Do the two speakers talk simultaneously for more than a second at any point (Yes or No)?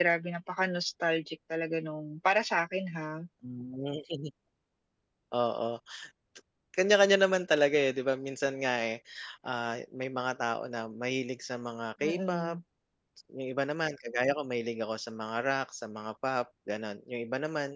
No